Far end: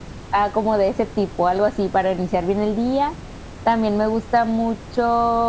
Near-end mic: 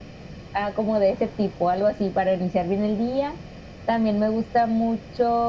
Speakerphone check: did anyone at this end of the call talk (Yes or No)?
No